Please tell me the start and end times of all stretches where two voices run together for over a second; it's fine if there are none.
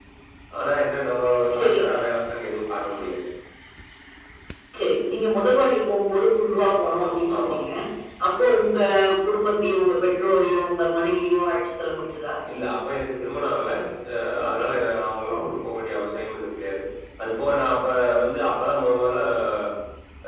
none

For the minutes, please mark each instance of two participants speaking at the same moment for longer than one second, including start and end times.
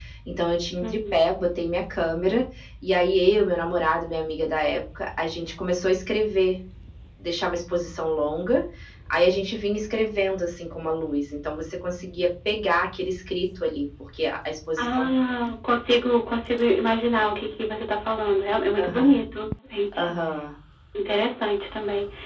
none

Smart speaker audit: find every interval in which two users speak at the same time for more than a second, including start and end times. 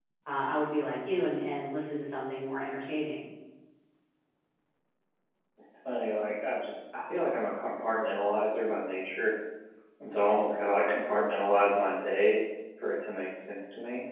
none

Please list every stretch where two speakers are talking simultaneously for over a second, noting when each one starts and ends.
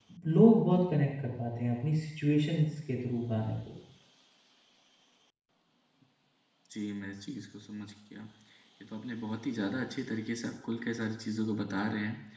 none

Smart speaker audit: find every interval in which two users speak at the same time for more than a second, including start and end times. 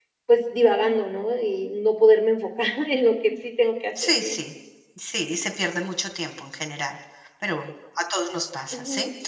none

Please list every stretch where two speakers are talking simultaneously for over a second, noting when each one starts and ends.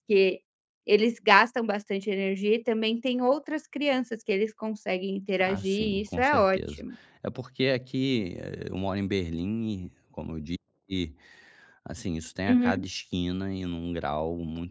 5.4-6.8

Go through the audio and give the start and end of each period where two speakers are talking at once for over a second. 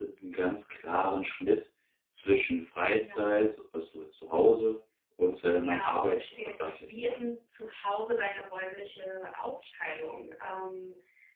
5.5-7.2

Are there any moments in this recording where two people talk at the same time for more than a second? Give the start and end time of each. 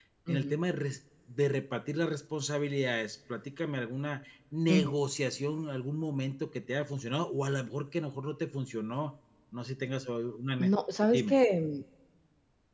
none

